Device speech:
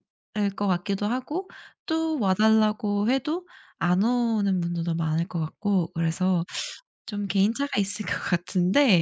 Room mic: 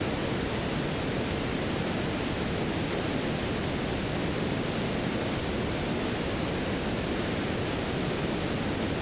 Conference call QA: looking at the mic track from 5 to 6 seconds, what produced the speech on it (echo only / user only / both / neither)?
neither